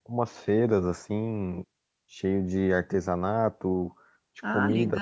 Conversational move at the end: listening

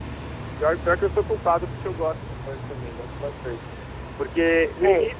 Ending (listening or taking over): listening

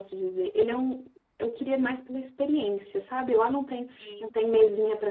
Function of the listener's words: listening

